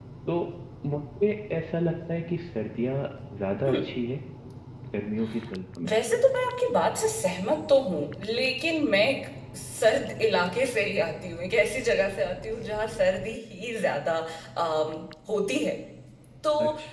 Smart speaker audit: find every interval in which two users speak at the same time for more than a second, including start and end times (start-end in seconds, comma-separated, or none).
none